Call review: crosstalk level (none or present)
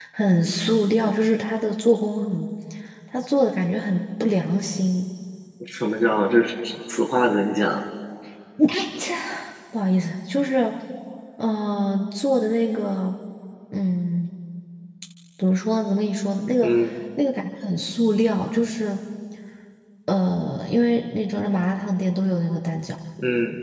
none